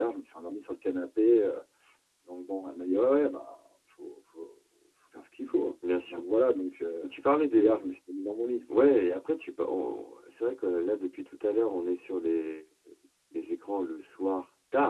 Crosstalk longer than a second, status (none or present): none